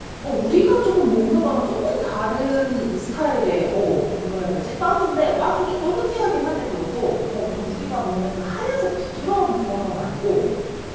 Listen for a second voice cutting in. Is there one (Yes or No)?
No